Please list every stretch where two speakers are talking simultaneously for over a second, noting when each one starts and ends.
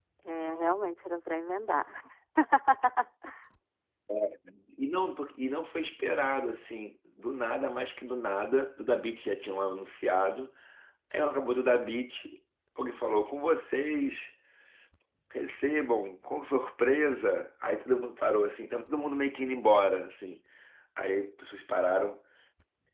none

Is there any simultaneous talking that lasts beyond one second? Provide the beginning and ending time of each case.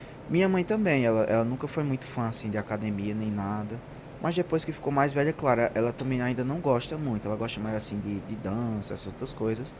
none

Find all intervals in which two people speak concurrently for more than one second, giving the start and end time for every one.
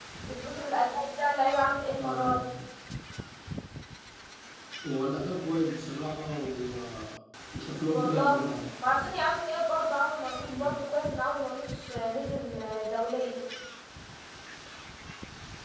none

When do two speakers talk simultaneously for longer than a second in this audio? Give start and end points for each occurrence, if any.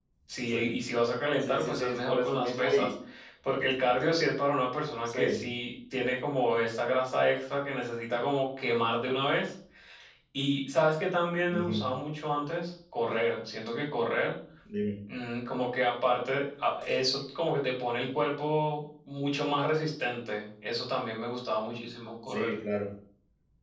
1.4-2.9

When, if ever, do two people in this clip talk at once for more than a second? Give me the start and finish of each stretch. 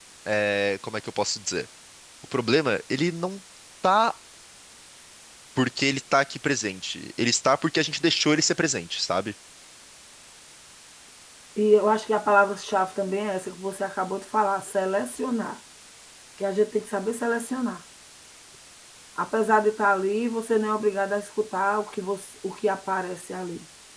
none

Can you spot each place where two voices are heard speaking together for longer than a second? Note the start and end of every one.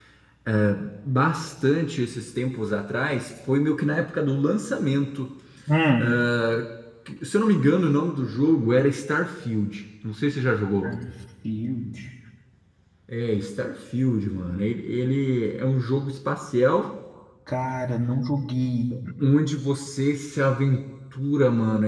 none

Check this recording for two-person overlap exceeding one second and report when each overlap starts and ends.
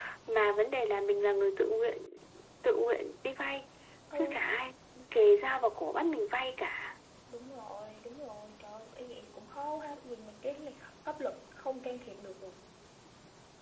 none

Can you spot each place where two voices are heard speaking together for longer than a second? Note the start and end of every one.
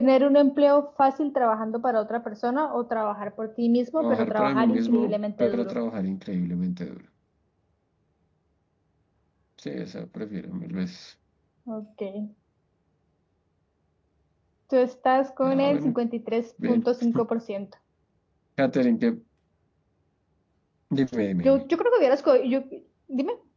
4.0-5.7

